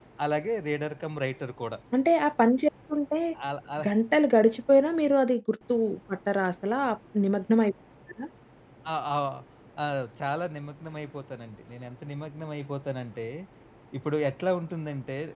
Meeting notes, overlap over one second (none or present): none